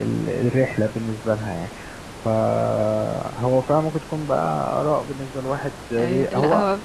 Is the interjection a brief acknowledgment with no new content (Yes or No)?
No